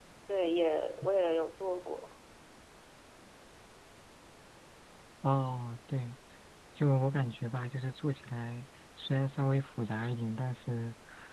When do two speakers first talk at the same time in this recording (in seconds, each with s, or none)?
none